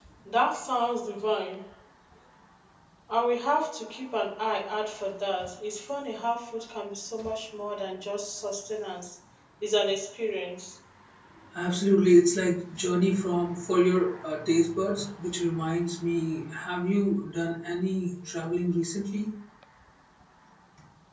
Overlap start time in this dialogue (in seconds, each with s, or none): none